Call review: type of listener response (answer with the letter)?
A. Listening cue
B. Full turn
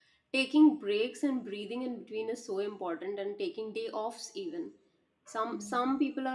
A